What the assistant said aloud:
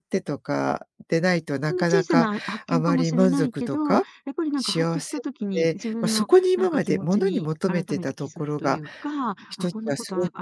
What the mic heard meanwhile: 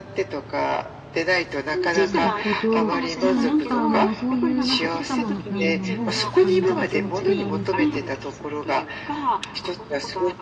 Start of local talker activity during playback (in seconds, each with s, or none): 1.9 s